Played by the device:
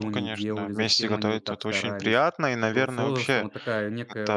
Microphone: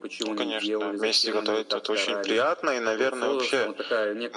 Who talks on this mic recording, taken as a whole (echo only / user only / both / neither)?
echo only